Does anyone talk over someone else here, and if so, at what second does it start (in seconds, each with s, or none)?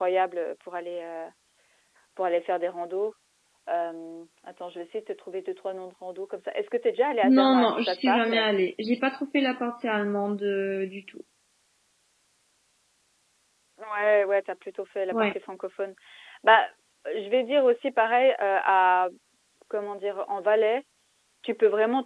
7.2 s